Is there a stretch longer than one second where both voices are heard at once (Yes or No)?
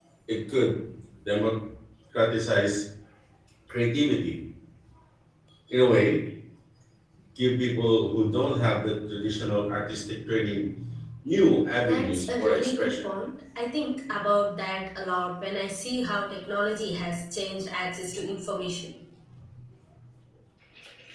Yes